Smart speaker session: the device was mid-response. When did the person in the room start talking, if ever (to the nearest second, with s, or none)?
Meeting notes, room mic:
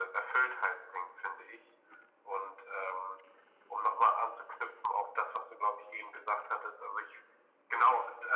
none